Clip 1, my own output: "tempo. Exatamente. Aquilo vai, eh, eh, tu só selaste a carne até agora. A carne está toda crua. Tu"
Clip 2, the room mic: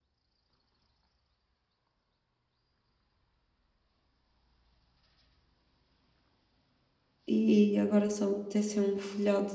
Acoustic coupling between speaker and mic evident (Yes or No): No